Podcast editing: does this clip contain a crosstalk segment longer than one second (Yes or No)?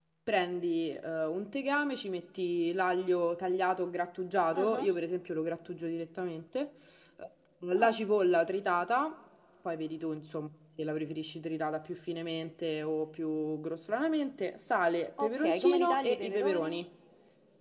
Yes